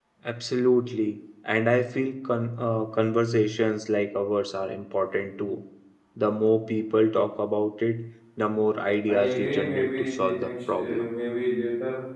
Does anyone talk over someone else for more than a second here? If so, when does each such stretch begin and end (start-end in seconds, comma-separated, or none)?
9.1-11.1